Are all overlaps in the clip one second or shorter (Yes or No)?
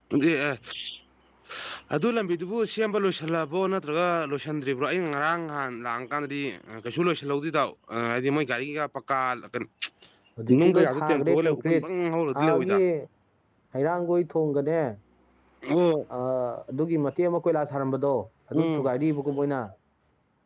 No